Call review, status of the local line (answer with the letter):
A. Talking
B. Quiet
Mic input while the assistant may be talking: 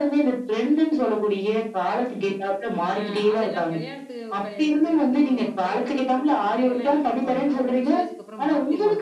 A